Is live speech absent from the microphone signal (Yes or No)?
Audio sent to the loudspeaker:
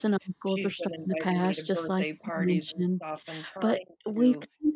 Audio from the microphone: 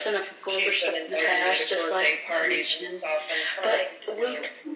Yes